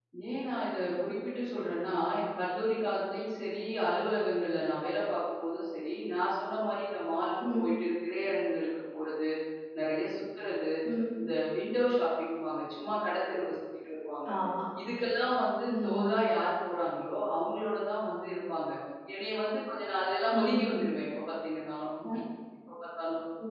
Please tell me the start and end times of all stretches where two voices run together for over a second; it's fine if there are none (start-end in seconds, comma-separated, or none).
none